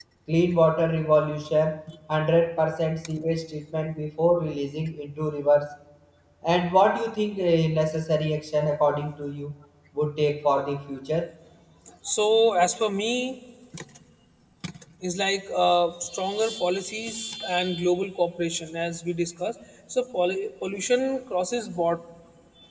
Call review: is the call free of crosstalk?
Yes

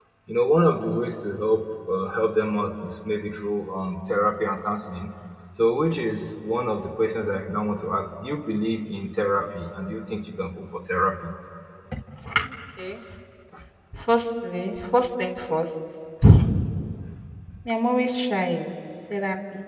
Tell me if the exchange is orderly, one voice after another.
Yes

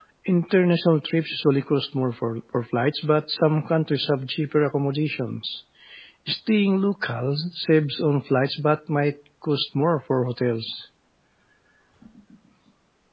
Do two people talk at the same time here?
No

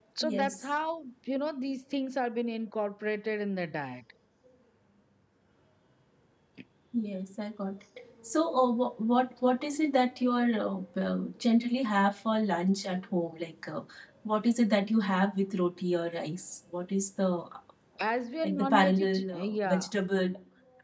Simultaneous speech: Yes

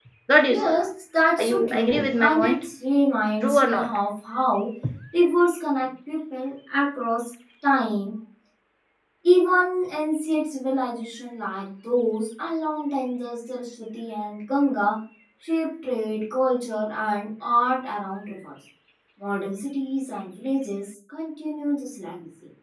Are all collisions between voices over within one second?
No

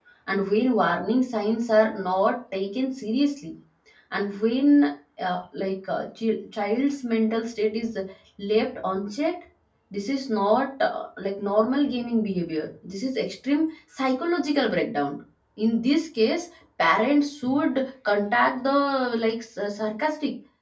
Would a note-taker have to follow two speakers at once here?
No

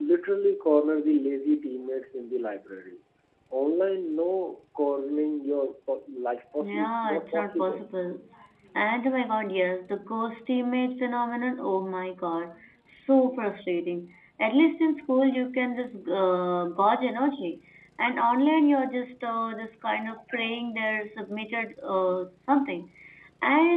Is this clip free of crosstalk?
No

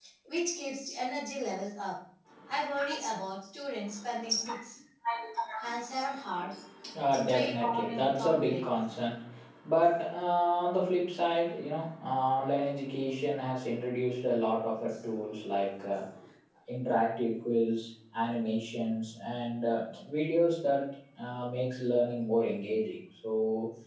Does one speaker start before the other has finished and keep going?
Yes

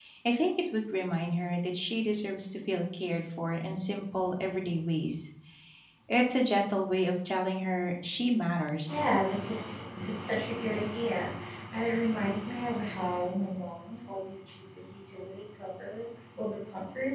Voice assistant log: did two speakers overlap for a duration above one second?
No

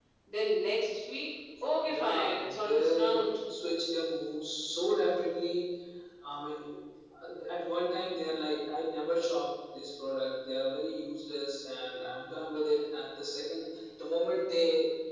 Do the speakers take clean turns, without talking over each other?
No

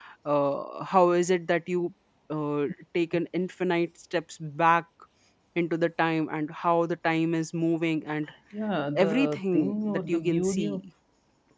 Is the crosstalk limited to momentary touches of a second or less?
No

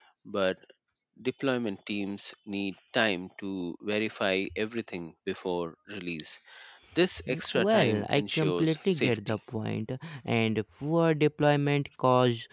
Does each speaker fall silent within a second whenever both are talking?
No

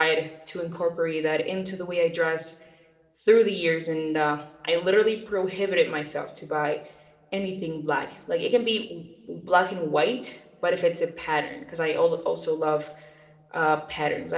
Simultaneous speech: No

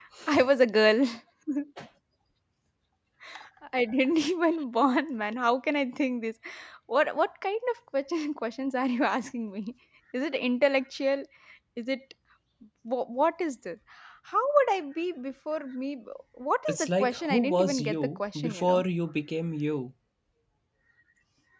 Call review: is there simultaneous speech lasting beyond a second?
Yes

